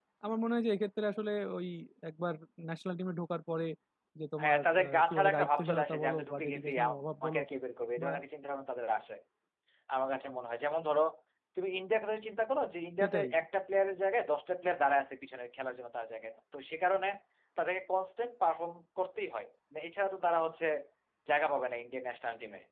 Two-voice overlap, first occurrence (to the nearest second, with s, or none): 4 s